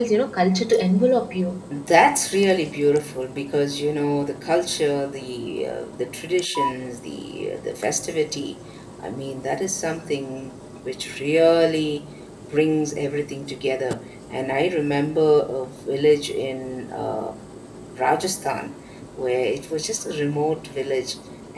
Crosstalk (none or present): none